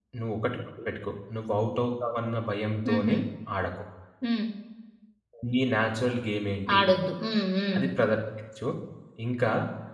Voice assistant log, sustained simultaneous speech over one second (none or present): none